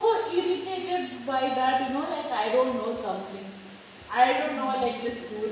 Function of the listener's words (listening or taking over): listening